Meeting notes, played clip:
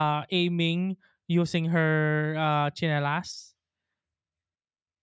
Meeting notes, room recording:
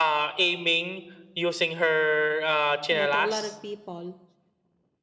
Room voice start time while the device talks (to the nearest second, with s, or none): 3 s